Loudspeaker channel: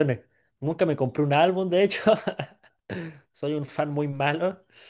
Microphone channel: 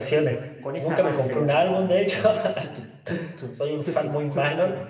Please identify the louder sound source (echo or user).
echo